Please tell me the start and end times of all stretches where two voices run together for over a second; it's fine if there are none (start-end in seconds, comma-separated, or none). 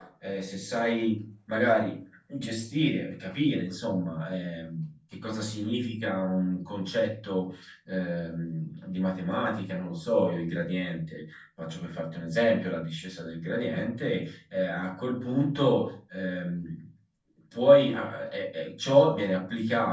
none